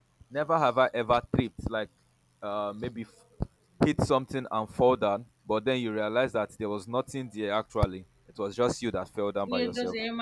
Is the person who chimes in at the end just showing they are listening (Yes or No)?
No